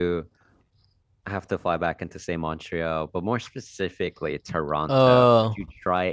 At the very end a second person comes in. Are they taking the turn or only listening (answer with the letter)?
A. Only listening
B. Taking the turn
A